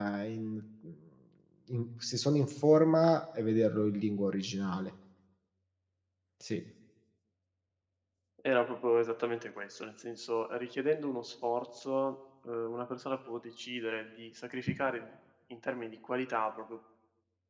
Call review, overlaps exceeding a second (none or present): none